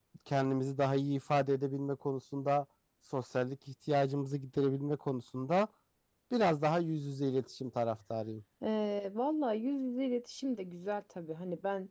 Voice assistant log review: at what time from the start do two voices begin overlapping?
none

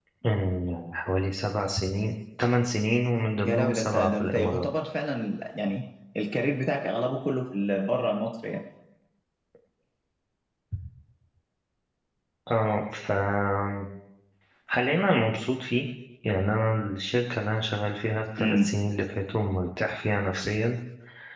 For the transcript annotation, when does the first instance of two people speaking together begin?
3 s

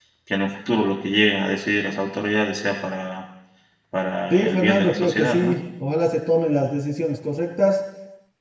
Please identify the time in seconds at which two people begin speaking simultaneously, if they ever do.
4 s

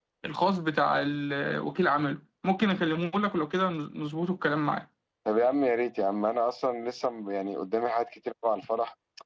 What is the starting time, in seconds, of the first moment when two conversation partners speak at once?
none

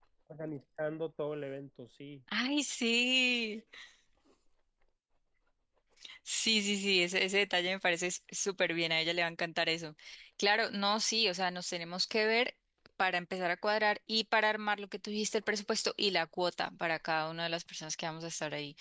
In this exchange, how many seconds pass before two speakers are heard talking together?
none

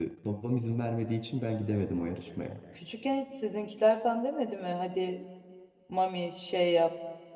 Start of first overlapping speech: none

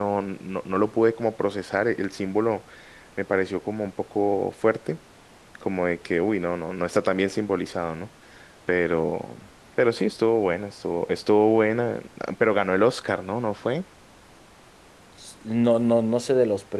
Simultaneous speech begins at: none

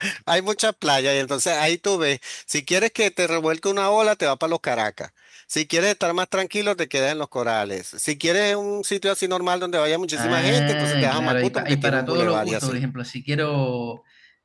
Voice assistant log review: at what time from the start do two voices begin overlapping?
10 s

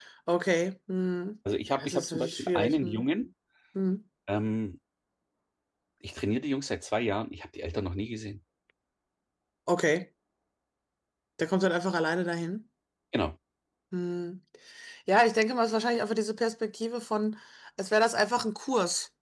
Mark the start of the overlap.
2 s

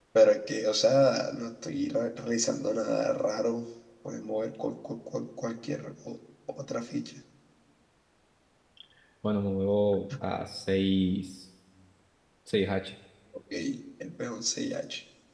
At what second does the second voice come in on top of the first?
none

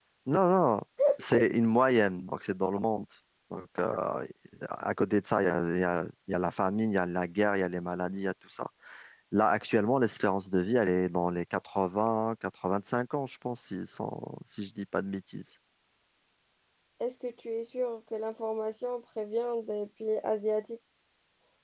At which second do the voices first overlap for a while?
none

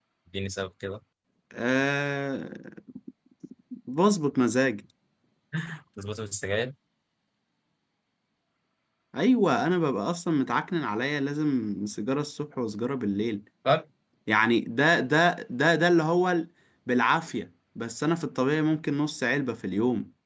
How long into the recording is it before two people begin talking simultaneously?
none

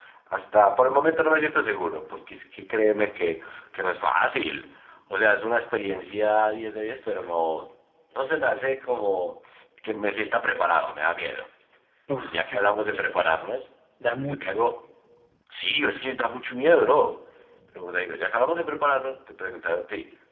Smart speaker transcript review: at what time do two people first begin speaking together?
12 s

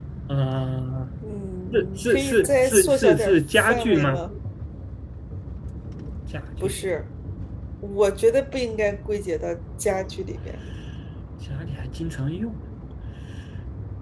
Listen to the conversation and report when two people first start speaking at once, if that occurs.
2 s

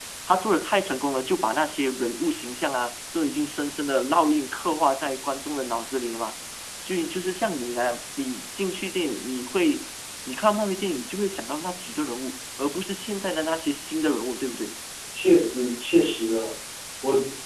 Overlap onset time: none

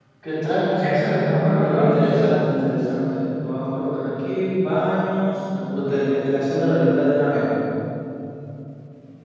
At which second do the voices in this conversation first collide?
1 s

